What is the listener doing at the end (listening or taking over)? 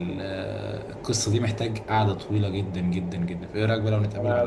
taking over